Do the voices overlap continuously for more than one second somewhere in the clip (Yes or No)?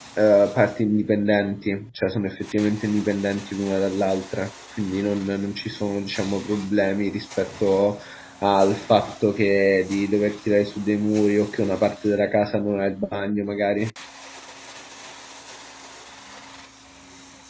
No